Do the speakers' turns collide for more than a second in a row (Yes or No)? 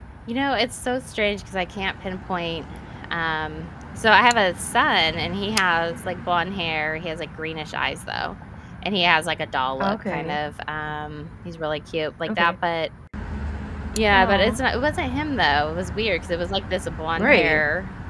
No